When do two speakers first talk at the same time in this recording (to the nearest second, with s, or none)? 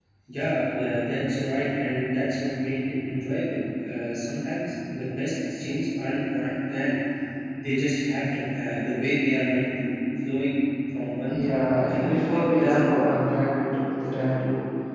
11 s